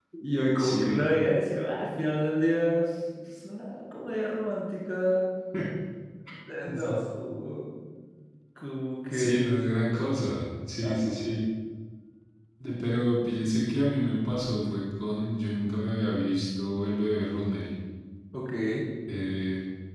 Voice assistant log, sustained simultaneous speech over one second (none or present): none